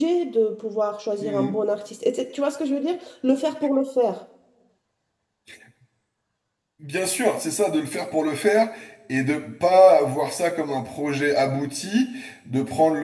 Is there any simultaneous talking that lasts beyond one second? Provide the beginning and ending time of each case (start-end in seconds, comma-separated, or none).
none